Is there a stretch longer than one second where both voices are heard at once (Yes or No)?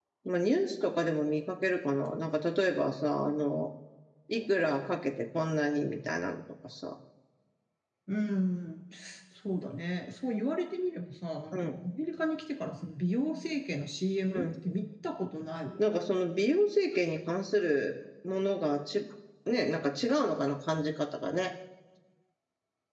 No